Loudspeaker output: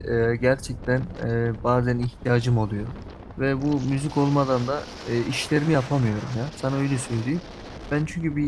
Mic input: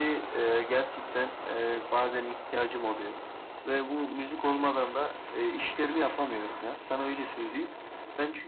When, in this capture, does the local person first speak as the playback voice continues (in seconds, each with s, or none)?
none